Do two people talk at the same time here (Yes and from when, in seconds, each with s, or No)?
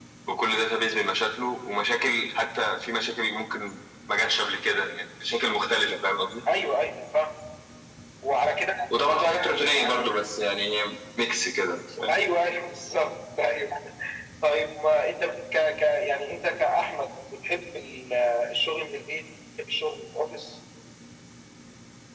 No